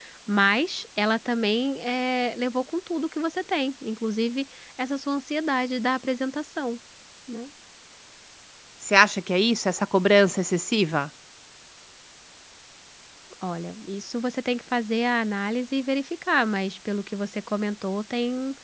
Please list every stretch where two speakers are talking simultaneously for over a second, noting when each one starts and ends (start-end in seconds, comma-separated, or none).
none